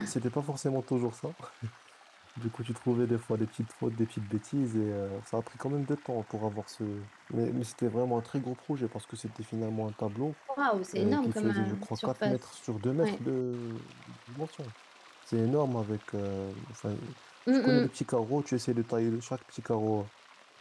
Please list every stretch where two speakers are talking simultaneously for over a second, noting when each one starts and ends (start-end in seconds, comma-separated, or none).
11.0-12.4